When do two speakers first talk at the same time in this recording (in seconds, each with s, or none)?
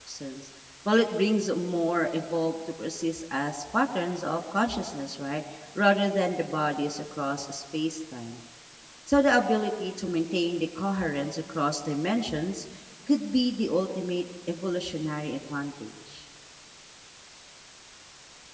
none